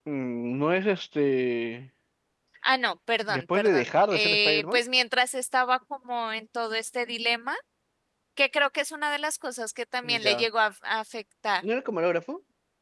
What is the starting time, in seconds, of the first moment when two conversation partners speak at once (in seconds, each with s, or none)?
3.3 s